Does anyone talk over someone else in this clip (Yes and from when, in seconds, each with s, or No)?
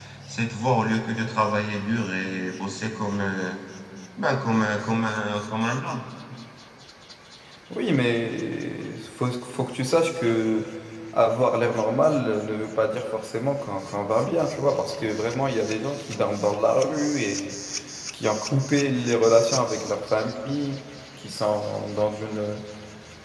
No